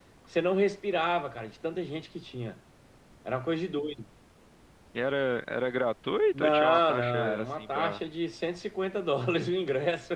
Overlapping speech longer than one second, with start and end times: 6.3-8.0

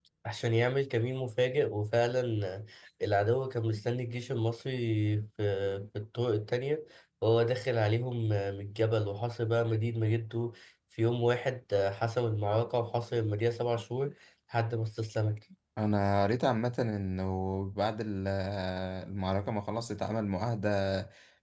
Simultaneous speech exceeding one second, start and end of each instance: none

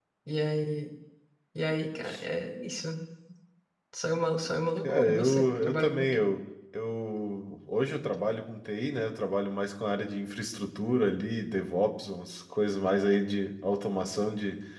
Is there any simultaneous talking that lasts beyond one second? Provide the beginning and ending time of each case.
4.8-6.2

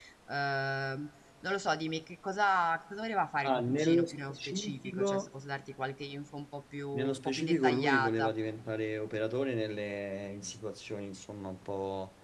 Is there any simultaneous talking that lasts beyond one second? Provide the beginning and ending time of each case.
3.4-5.3, 6.9-8.3

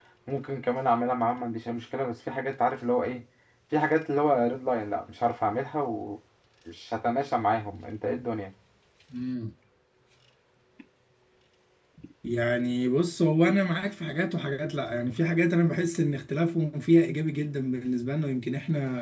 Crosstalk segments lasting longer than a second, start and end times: none

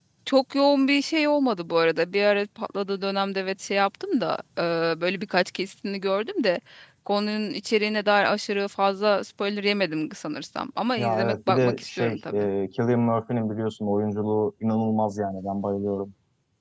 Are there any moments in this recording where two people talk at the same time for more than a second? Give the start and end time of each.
11.0-12.5

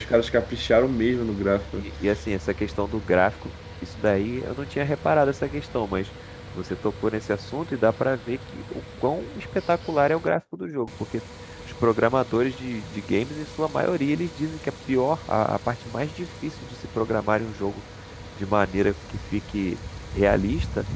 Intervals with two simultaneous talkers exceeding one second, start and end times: none

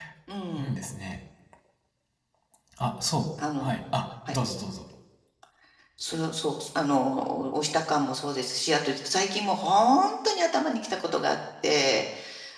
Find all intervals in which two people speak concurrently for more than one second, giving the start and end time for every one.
none

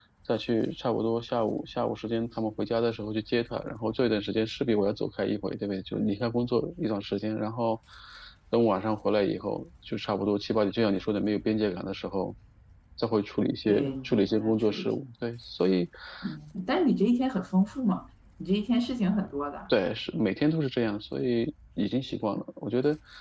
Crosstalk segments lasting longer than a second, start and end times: 13.7-14.9

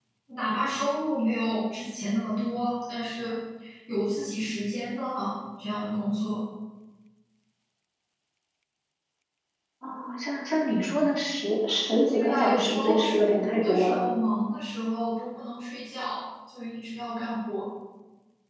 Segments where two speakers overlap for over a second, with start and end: 12.1-14.0

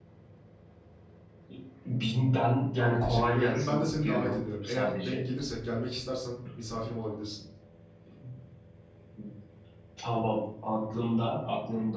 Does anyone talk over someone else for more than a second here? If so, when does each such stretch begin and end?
2.8-5.3

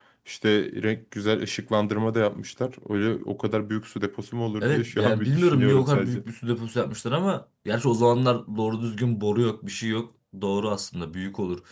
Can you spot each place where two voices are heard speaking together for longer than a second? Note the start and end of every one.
4.6-6.2

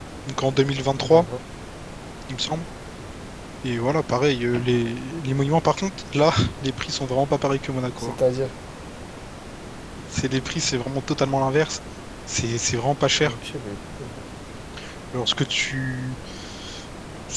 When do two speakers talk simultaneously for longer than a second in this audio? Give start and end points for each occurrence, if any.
none

